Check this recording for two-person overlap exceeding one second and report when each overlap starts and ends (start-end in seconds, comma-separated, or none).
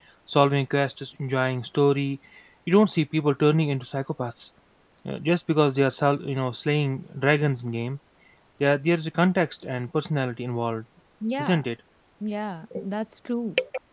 none